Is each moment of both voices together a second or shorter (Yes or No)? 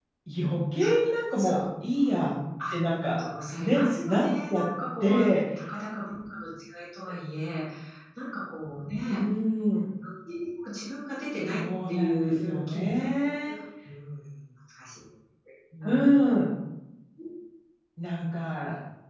No